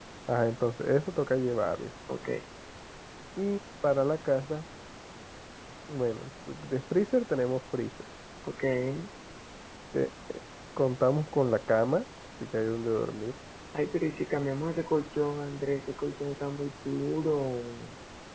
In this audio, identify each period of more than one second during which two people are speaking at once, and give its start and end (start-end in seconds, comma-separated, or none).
none